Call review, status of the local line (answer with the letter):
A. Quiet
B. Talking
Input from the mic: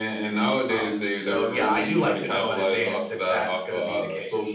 A